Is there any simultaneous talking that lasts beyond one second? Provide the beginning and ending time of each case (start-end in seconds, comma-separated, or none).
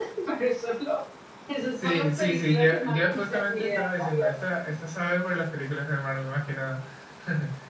1.8-4.3